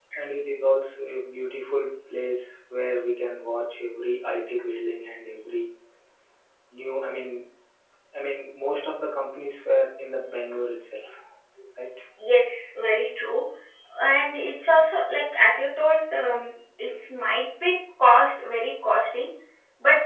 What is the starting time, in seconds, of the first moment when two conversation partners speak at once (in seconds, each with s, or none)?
none